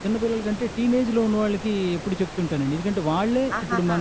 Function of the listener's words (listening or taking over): listening